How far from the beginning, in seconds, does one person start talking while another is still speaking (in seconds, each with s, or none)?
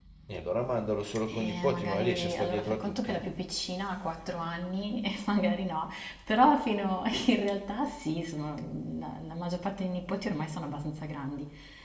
1.3 s